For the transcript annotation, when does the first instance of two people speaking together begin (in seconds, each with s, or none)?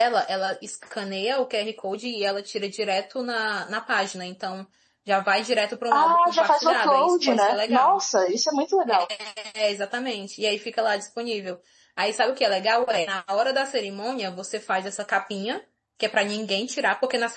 5.9 s